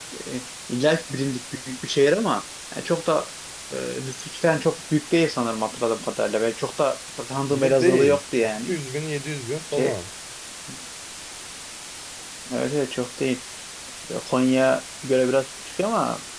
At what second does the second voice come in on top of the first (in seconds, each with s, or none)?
7.5 s